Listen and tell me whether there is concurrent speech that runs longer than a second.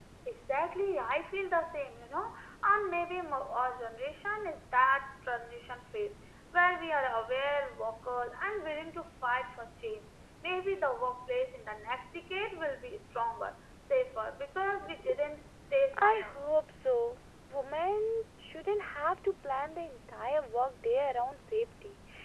No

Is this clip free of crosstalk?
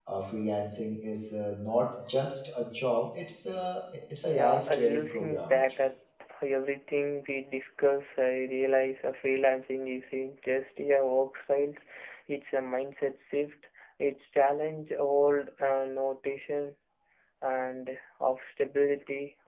No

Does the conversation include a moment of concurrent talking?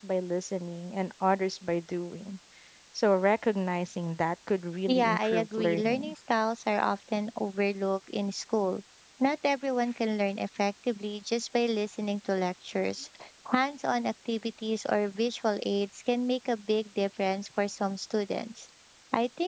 Yes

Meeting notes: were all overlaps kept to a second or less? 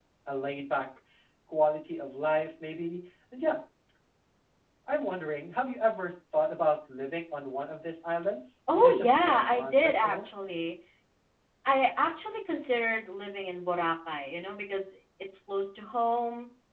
No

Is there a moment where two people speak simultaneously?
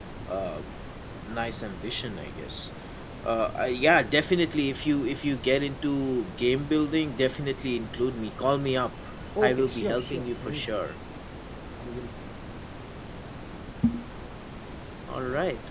Yes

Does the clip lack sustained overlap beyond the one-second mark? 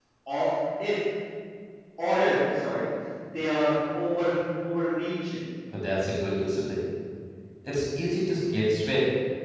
Yes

